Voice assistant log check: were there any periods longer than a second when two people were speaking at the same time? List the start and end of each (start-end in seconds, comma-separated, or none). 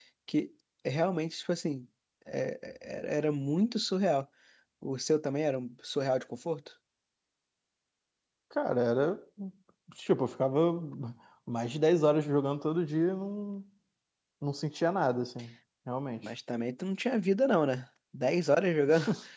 none